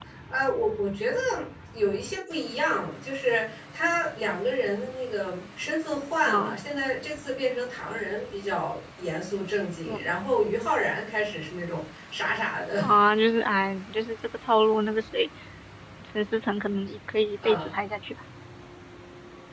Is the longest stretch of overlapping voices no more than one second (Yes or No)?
Yes